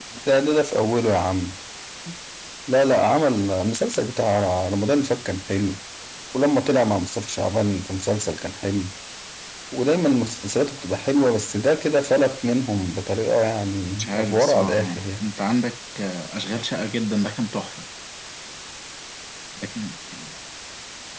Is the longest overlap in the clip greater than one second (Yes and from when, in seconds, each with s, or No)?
Yes, from 14.0 s